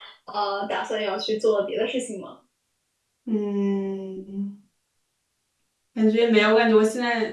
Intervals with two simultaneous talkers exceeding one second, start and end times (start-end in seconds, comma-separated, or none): none